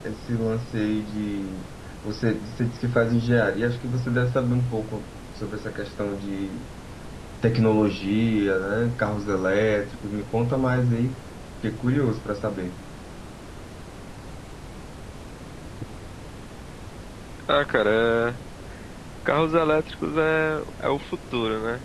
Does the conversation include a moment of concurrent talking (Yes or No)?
No